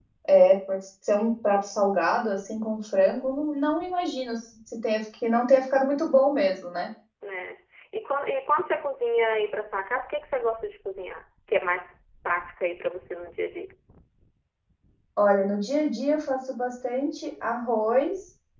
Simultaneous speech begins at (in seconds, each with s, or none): none